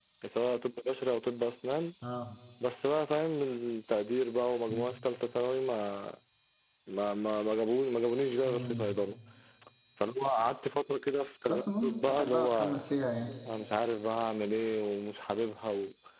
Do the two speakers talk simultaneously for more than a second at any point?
Yes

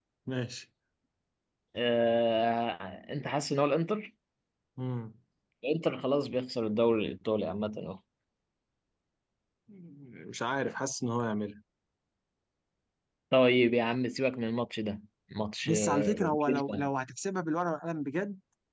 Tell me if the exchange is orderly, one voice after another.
No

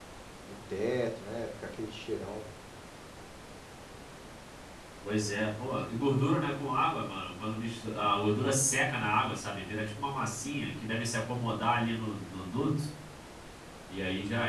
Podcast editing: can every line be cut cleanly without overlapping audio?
Yes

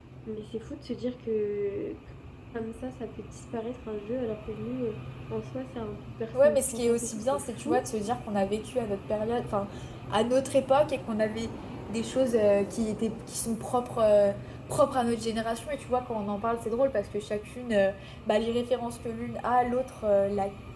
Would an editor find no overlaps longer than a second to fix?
No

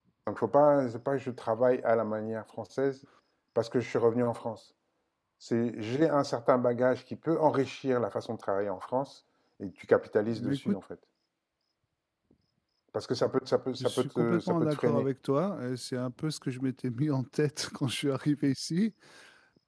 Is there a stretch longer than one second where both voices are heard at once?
Yes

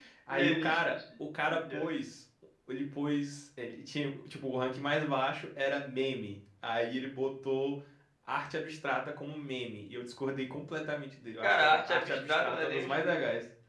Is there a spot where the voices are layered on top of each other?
Yes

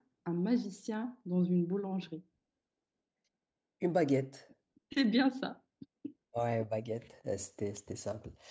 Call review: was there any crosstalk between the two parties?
No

